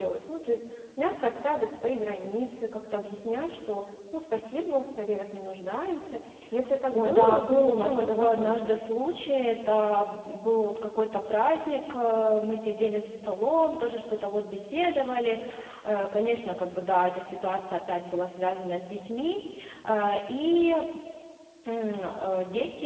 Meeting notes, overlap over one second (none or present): present